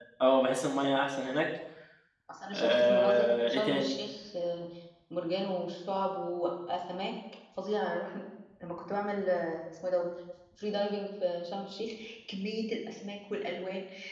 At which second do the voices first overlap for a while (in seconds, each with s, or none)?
2.5 s